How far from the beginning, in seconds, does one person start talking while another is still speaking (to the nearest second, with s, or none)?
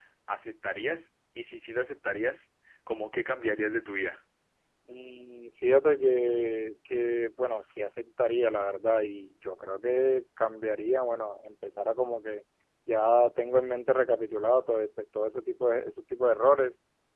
none